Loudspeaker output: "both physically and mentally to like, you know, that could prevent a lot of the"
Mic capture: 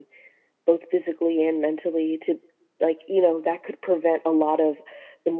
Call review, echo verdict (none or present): present